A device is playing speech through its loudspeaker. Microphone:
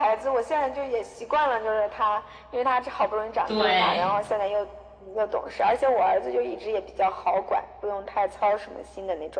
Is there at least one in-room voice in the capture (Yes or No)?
Yes